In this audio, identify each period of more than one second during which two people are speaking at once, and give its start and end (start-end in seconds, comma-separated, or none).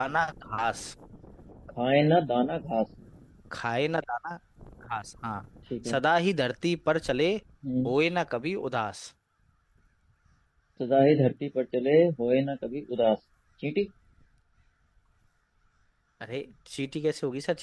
none